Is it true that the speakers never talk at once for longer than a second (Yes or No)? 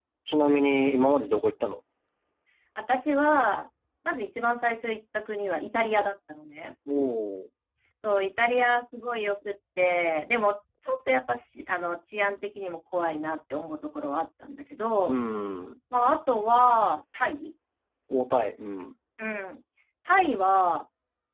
Yes